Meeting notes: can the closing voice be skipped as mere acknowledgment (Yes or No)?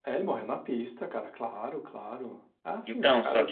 No